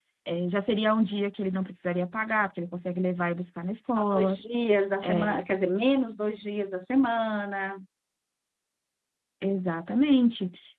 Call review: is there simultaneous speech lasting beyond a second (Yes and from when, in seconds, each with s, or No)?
No